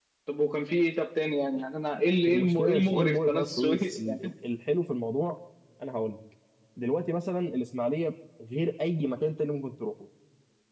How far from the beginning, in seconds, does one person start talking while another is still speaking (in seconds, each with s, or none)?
2.3 s